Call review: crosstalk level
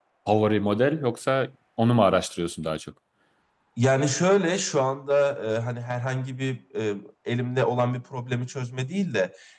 none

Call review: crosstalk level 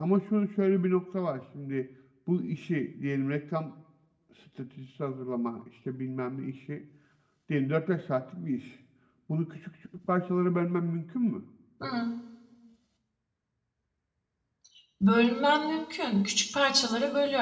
none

